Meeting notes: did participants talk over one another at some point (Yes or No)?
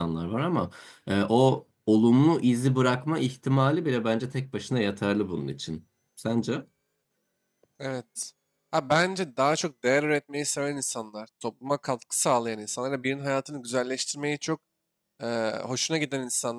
No